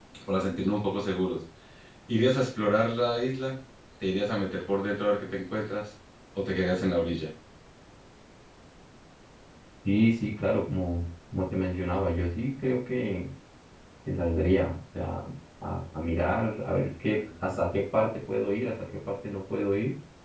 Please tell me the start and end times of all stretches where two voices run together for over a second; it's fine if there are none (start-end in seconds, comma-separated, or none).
none